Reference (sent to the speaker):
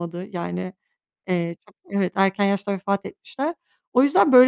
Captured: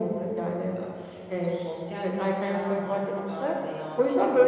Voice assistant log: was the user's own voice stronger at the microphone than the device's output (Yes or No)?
No